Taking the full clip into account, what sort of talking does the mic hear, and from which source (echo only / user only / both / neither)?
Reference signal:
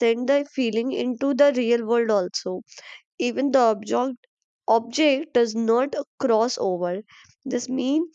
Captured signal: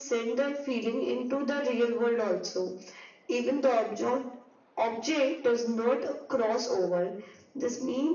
echo only